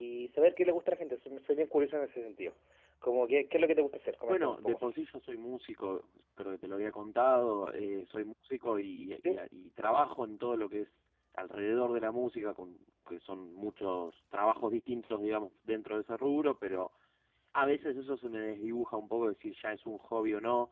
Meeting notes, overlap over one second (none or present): none